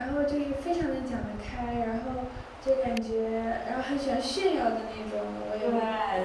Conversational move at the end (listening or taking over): taking over